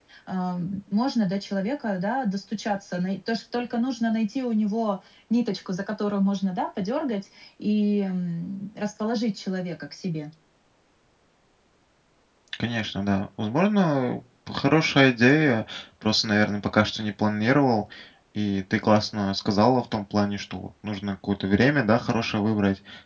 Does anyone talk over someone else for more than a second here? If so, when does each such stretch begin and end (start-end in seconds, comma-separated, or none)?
none